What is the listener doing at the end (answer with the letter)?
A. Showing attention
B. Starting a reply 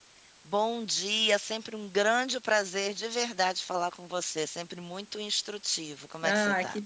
B